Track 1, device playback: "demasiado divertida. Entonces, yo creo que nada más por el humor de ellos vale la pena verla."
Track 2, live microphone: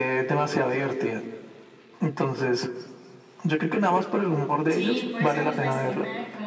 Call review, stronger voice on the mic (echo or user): echo